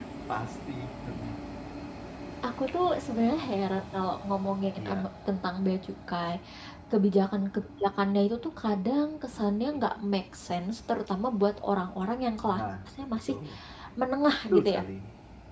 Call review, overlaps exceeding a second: none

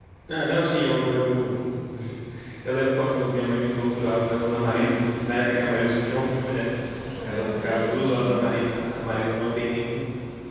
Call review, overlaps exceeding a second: present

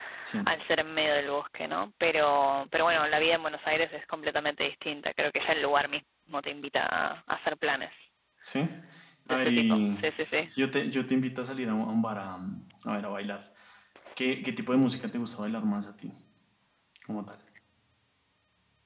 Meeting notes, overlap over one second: present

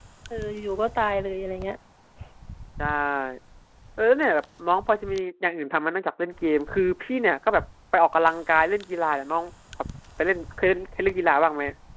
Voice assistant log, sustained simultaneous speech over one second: none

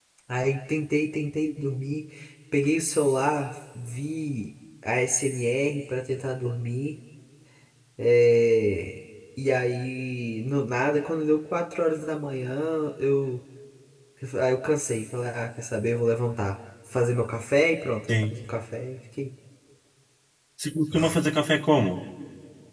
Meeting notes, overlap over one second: none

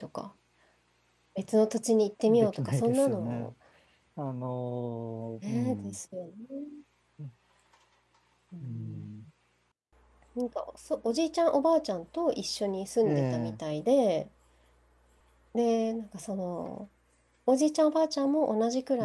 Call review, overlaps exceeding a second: present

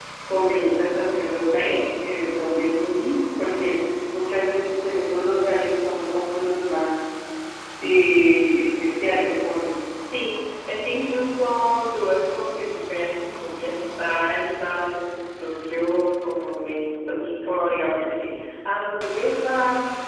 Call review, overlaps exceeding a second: none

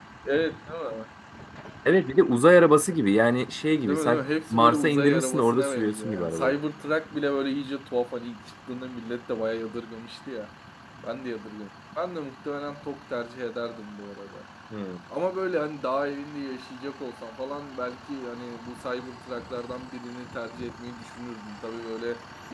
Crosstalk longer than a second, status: present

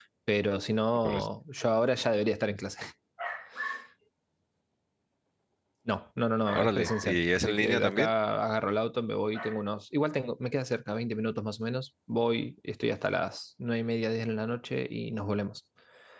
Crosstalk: present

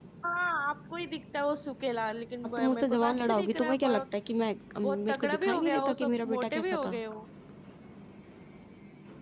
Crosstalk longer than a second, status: present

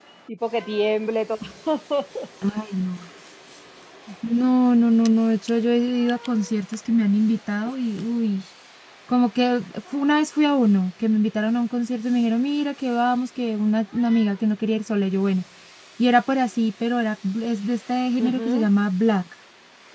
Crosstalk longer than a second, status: none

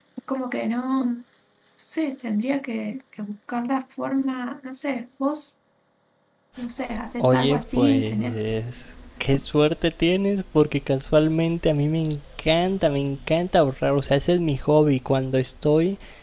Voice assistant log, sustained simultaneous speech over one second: present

